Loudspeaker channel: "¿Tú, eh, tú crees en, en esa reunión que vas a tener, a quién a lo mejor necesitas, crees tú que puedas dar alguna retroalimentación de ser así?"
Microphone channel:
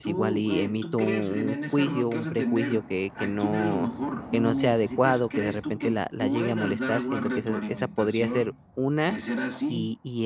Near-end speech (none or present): present